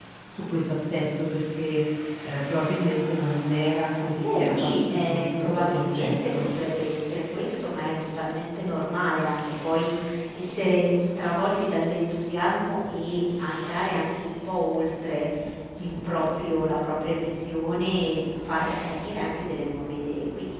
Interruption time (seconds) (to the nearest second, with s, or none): 4 s